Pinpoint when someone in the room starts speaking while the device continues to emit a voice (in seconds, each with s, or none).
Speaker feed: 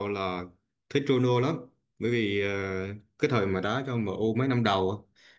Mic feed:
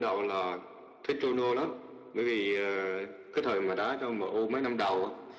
none